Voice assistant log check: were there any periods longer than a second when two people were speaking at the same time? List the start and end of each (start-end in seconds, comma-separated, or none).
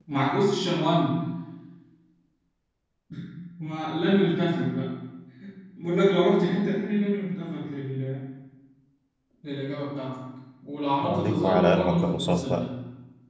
11.0-12.7